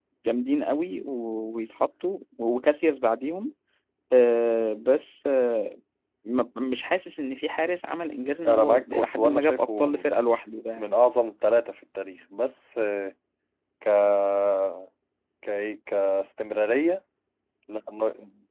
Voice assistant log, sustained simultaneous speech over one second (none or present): present